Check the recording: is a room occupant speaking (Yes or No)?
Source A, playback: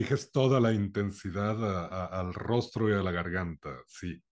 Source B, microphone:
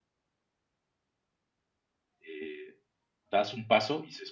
Yes